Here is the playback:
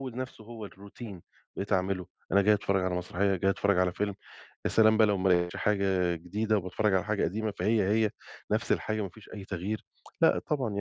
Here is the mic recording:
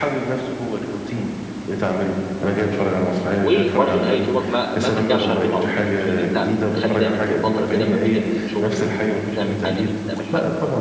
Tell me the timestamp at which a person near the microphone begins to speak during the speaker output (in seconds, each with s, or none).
3.4 s